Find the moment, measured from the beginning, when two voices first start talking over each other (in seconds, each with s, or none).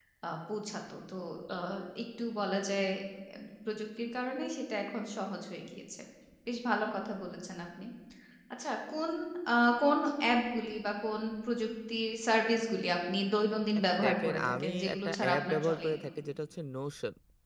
13.8 s